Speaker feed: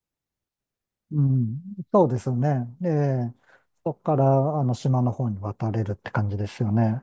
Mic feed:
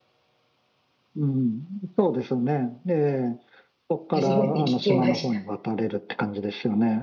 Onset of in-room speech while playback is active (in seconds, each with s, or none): 4.1 s